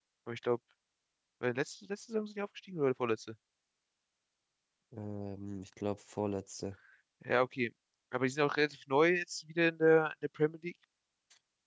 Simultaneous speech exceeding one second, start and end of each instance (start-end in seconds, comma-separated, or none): none